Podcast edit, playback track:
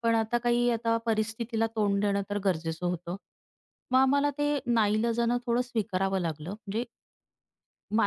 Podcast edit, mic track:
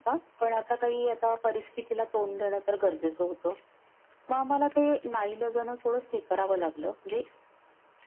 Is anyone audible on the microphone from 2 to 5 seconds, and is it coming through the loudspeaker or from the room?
echo only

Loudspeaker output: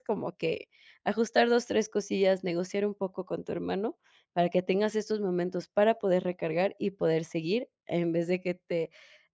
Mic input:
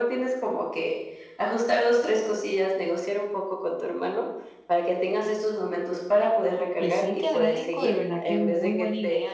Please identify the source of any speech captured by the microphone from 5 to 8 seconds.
both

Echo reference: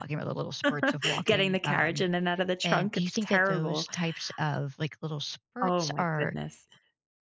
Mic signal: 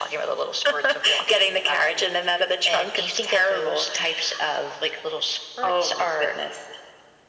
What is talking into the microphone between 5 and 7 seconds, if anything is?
echo only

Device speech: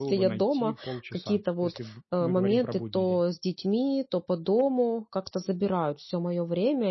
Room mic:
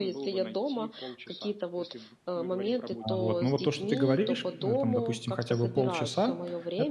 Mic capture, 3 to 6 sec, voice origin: both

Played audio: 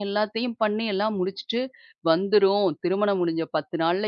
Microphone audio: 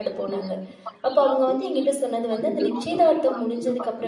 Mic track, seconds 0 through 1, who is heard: both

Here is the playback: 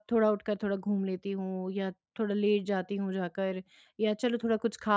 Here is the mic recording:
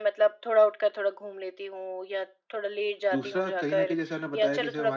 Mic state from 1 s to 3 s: echo only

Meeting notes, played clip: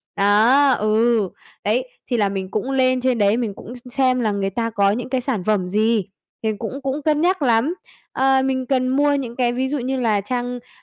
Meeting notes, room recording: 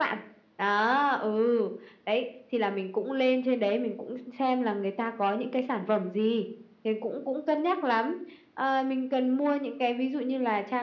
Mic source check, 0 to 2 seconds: echo only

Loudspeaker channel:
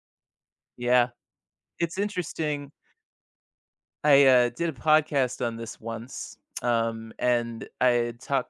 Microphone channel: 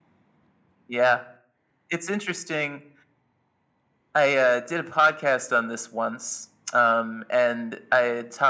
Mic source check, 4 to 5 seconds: echo only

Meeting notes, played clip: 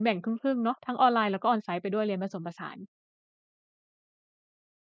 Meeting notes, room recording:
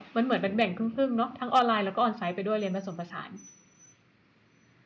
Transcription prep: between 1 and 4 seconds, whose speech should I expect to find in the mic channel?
echo only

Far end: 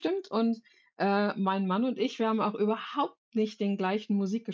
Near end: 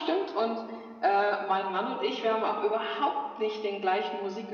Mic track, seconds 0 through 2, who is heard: echo only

